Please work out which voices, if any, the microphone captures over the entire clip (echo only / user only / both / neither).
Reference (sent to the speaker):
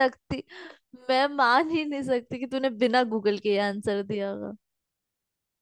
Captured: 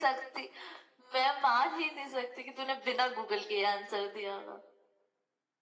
echo only